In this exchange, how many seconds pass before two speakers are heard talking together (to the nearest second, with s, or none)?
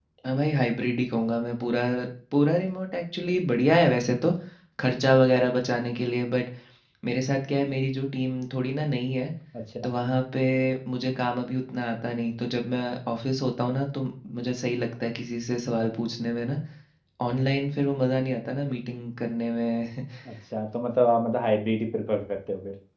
none